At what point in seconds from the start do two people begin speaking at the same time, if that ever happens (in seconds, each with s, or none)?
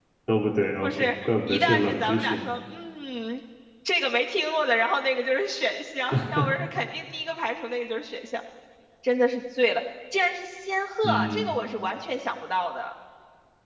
0.8 s